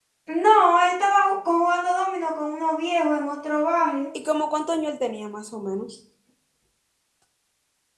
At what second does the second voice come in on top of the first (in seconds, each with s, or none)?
none